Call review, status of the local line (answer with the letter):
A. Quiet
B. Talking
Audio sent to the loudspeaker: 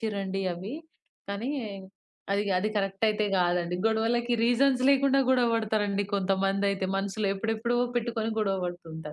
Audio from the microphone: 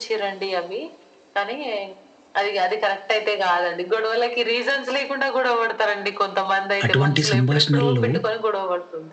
B